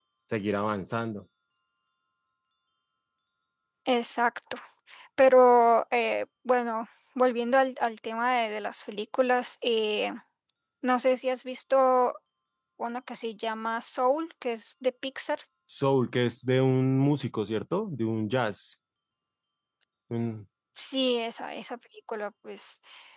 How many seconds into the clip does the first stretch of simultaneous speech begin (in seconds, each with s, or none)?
none